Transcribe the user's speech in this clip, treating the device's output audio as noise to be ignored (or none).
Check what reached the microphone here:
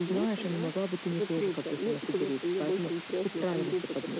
none